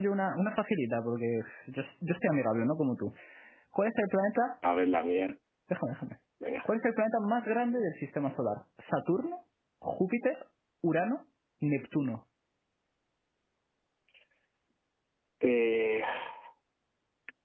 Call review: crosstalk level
none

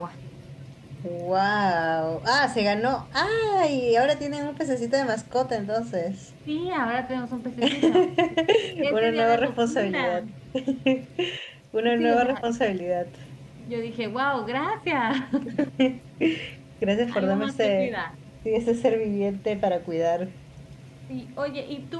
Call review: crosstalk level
present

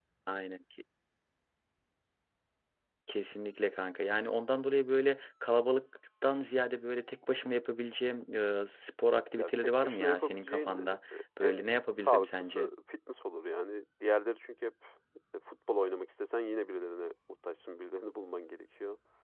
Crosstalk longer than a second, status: present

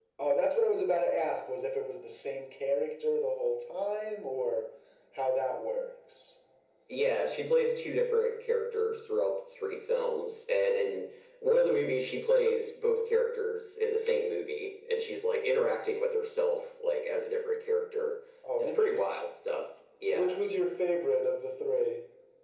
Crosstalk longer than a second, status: none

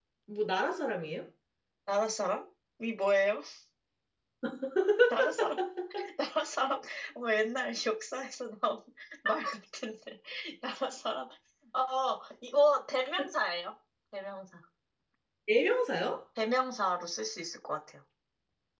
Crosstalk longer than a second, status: none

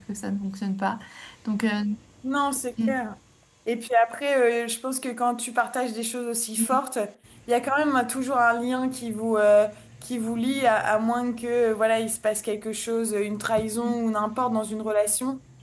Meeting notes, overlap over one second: none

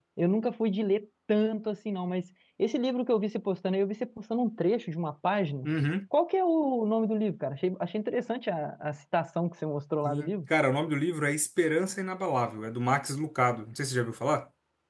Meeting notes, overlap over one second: none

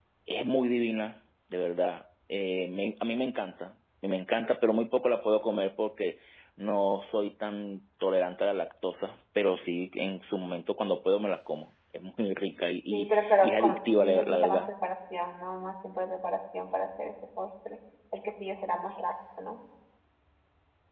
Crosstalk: present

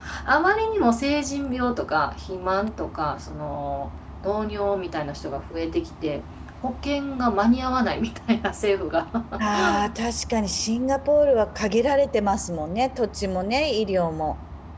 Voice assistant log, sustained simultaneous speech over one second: none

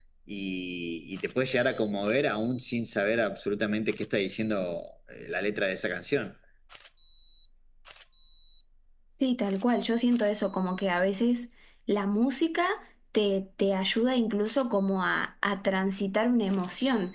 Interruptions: none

